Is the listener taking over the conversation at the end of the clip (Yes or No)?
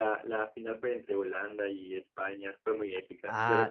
Yes